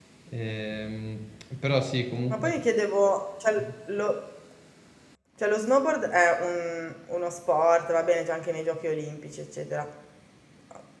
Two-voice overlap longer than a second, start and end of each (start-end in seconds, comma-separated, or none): none